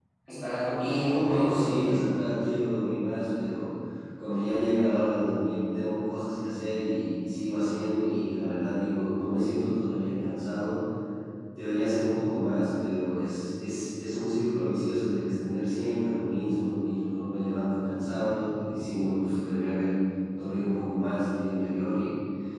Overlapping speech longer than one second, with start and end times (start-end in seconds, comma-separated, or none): 0.8-2.0